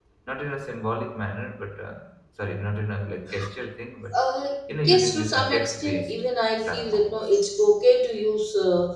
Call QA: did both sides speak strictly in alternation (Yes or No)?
No